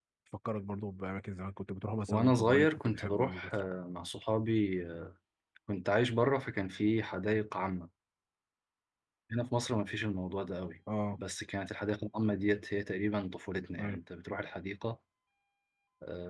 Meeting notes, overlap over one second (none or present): present